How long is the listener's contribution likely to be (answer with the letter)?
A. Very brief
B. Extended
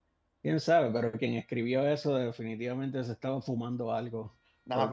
B